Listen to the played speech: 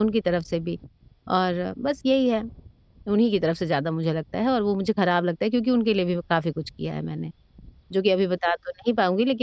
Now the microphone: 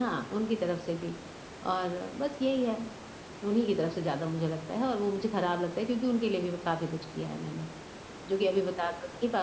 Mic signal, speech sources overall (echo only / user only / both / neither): echo only